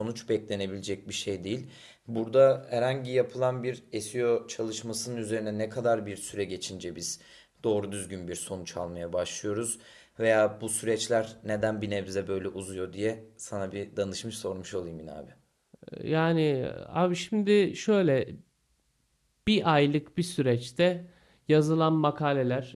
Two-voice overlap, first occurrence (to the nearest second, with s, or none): none